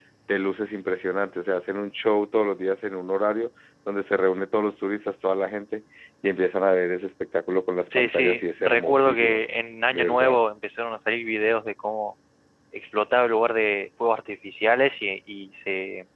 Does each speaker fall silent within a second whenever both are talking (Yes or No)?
No